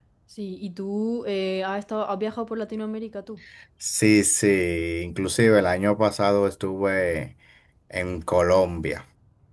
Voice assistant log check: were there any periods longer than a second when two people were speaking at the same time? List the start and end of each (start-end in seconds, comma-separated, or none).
none